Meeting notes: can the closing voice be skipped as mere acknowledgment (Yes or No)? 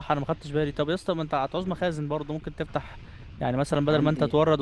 Yes